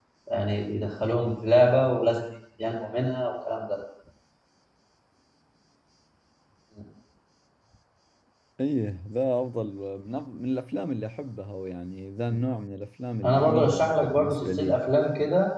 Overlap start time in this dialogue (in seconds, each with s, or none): 13.2 s